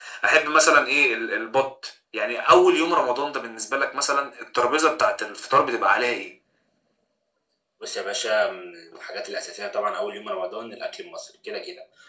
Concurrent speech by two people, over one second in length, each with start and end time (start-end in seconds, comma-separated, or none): none